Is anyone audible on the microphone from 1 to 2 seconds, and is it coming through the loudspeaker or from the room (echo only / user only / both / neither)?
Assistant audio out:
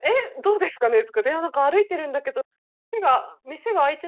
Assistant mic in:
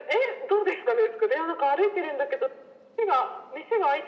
echo only